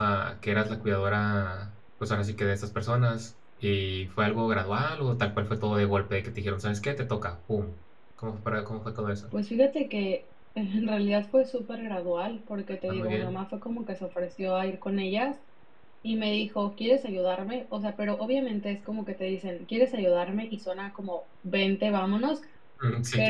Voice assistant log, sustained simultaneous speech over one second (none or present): none